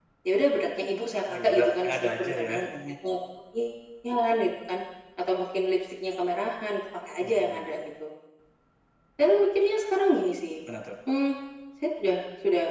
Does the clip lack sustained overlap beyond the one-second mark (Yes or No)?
No